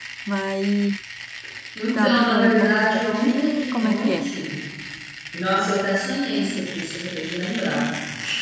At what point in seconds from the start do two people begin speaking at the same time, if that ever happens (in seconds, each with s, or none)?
1.9 s